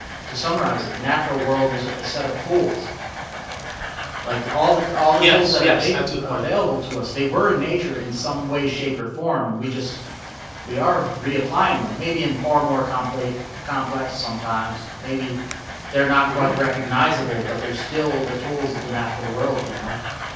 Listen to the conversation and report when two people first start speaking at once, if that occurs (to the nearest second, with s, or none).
5 s